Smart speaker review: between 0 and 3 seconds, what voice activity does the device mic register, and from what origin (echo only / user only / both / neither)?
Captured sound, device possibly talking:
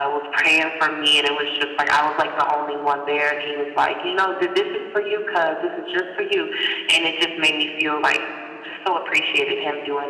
echo only